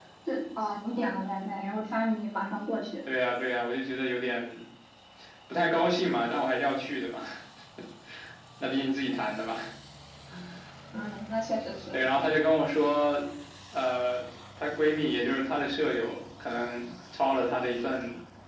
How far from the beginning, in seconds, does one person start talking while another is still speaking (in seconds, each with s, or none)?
none